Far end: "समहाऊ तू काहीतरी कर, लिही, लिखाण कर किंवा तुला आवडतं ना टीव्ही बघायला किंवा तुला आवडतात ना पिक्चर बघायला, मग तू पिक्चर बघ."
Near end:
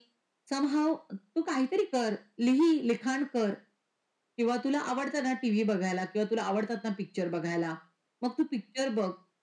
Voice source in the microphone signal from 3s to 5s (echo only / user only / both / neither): echo only